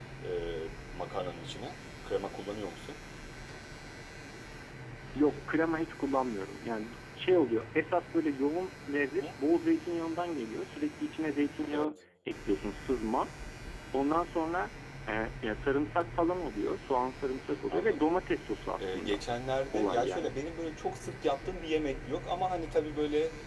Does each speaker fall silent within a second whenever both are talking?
Yes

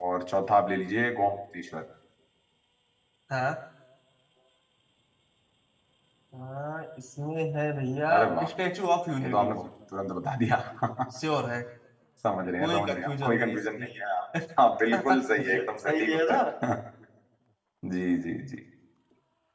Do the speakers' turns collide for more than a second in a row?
Yes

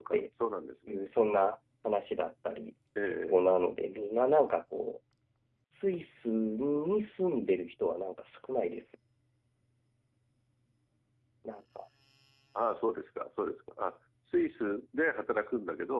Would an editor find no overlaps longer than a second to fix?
Yes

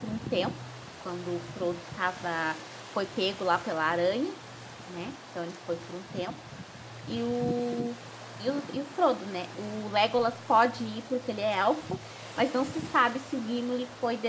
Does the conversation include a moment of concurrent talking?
No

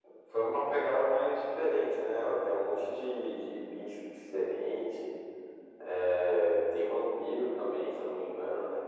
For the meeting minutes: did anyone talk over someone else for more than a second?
No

